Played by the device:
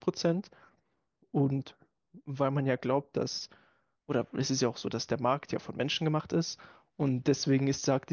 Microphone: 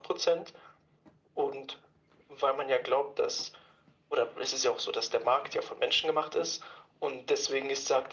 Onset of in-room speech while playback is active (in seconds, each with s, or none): none